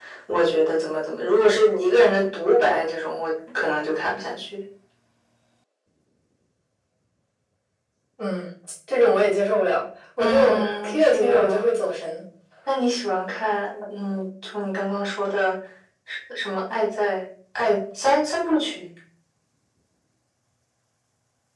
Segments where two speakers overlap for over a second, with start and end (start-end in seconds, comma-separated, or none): 10.2-11.6